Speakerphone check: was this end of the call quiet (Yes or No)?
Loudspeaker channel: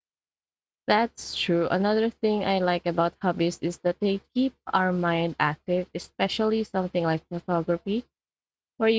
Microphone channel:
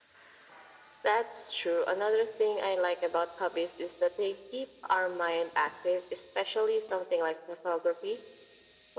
Yes